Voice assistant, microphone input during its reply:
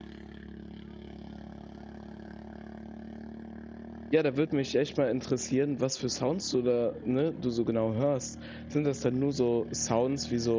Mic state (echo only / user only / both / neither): user only